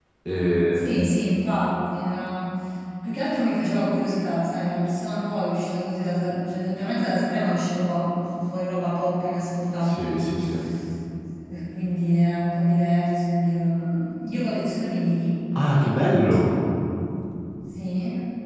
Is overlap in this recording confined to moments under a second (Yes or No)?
Yes